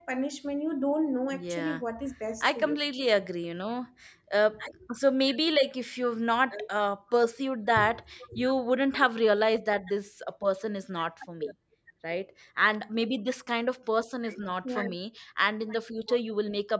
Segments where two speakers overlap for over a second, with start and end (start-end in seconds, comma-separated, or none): none